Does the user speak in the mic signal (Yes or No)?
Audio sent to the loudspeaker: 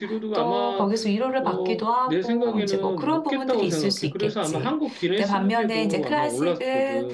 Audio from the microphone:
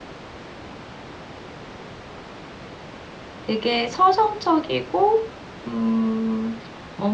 Yes